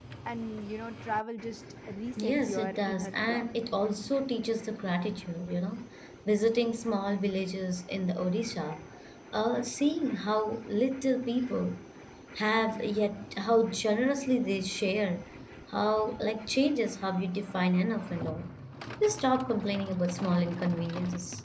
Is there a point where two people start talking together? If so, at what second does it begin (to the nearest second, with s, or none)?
2 s